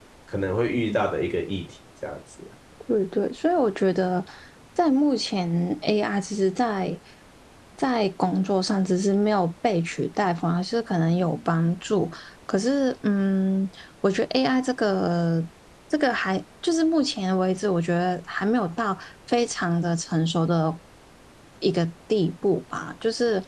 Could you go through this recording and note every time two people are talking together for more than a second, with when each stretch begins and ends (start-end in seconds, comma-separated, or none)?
none